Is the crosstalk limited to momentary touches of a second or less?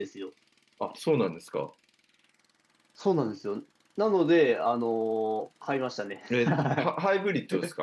Yes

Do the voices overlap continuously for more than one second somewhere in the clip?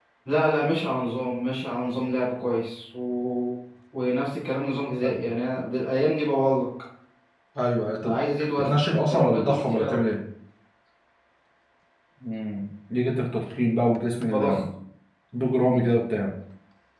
Yes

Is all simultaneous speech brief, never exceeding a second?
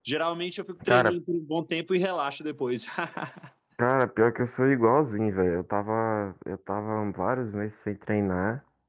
Yes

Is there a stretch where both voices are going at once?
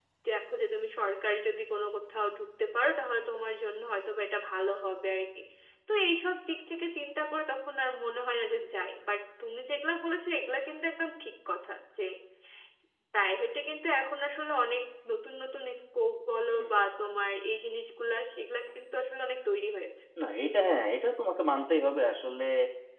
No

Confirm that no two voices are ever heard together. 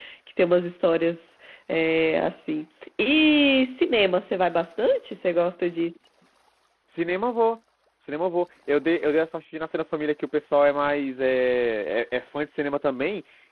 Yes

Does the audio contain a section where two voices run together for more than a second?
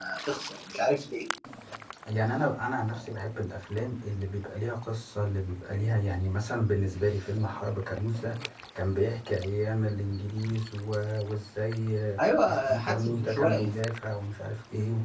Yes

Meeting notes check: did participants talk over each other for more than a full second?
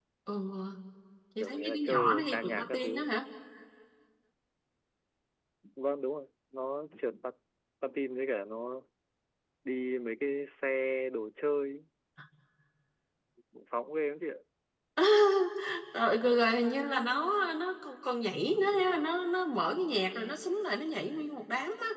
Yes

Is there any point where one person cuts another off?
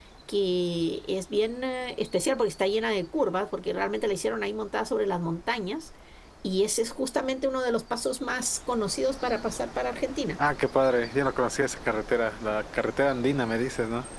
No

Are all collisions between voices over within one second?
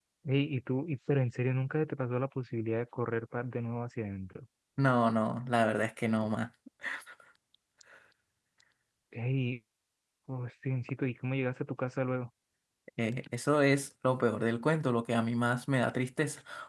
Yes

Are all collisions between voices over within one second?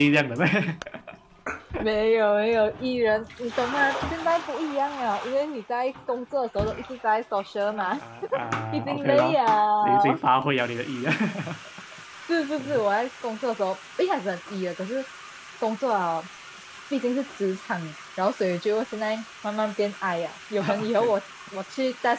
No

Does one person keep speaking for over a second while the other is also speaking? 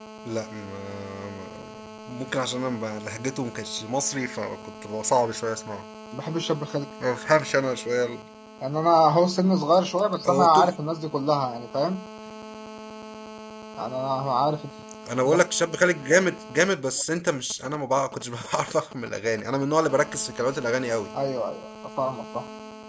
No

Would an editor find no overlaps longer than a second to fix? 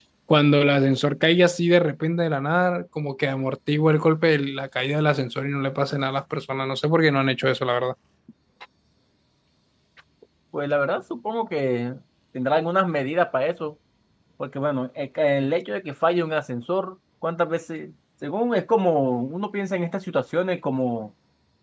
Yes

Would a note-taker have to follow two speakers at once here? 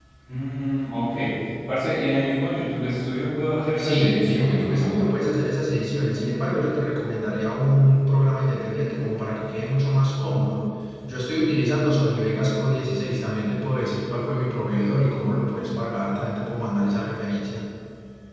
Yes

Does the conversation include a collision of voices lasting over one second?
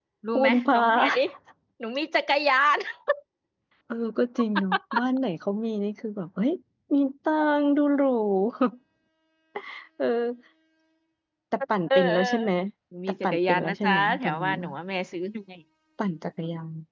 Yes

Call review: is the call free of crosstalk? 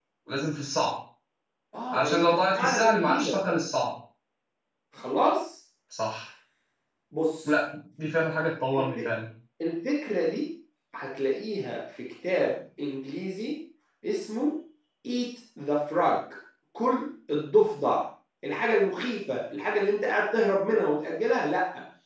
No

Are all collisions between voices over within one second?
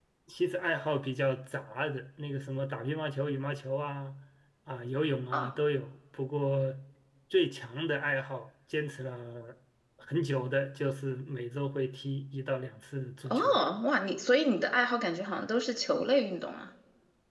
Yes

